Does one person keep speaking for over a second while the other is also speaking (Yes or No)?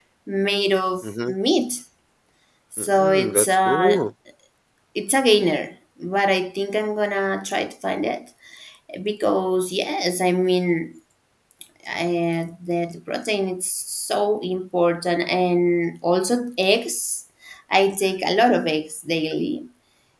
Yes